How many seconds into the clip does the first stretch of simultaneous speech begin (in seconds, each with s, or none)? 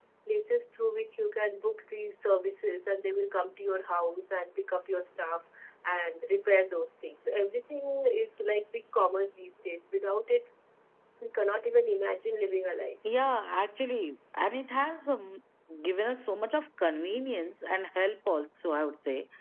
none